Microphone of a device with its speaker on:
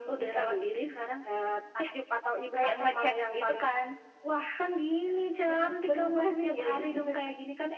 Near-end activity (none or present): none